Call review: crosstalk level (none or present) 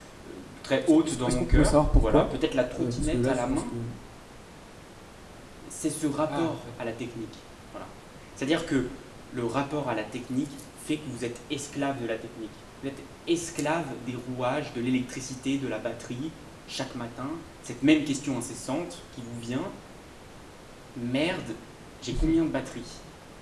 present